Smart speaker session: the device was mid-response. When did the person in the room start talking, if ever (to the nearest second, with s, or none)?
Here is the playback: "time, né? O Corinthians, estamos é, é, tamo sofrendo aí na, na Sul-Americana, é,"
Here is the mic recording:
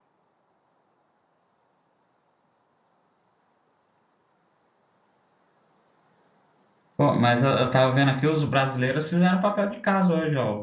7 s